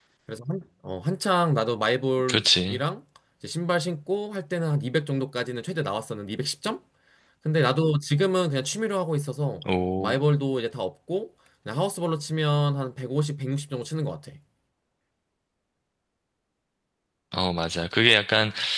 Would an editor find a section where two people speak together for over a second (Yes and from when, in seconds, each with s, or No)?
No